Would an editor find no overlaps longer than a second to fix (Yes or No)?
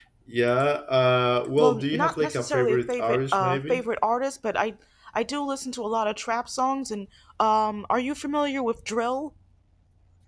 No